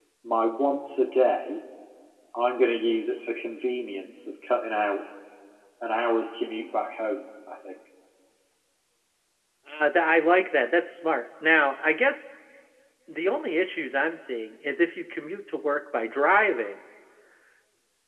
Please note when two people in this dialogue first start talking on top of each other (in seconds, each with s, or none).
none